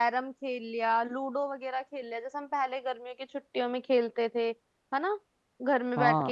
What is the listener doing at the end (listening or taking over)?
listening